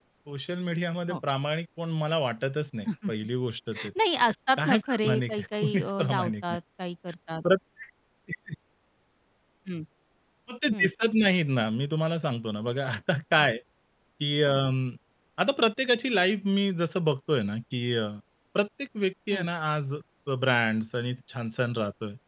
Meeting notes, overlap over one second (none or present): present